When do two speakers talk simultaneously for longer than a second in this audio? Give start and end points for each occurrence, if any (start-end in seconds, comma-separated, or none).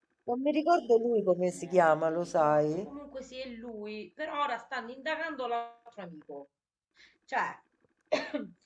1.5-2.9